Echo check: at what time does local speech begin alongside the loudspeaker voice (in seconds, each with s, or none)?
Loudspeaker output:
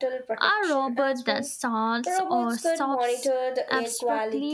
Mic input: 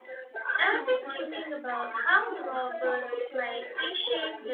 0.6 s